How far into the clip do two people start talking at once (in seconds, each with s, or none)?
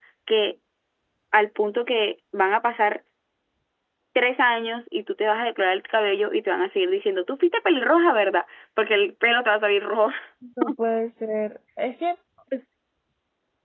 none